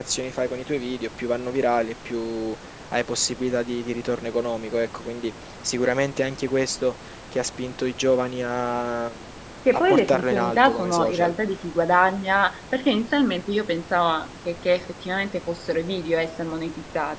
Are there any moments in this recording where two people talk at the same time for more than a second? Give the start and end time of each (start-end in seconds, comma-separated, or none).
9.9-11.3